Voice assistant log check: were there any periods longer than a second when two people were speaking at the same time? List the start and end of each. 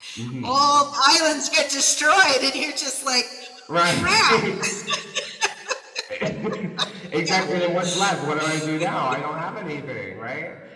none

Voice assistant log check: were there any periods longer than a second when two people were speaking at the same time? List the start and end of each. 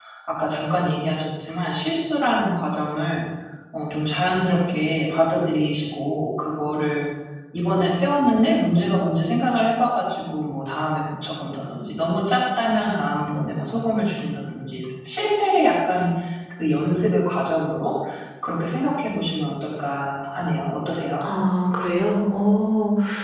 none

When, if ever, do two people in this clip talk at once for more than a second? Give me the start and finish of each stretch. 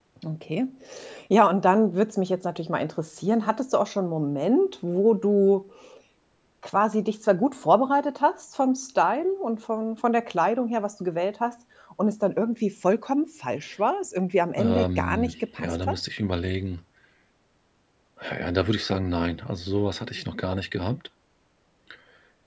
14.6-15.9

